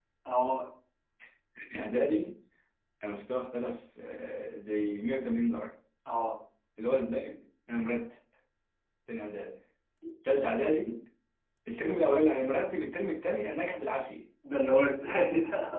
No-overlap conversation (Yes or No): Yes